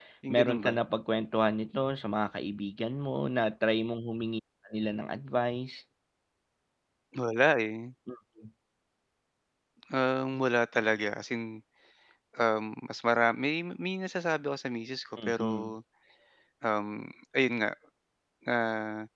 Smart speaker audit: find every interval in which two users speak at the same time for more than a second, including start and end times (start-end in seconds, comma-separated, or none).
none